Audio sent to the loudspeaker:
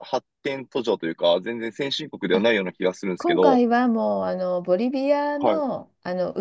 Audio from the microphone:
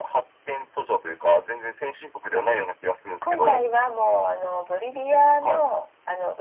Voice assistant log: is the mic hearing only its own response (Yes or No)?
Yes